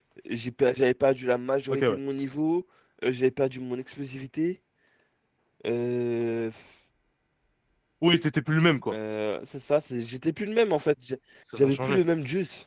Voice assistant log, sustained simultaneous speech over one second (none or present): none